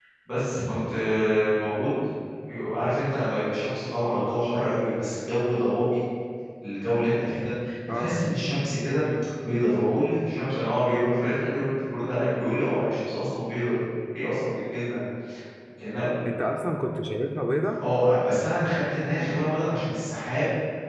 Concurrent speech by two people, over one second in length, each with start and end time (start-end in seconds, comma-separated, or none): none